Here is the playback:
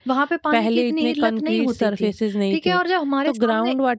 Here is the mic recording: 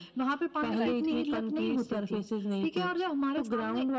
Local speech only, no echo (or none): राइट।